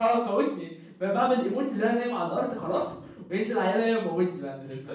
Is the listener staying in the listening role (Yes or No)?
No